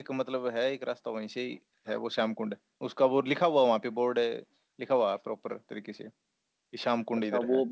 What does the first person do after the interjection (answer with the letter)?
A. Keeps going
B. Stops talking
B